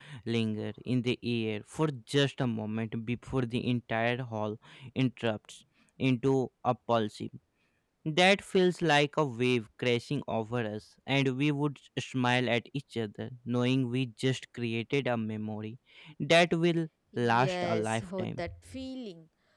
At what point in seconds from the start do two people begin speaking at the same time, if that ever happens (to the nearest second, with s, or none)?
17 s